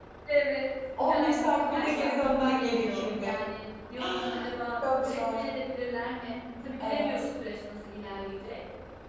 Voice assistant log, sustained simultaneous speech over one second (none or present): present